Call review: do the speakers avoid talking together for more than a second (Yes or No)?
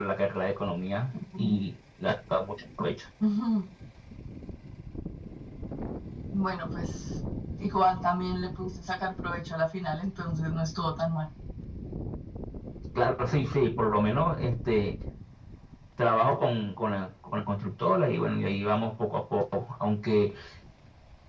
Yes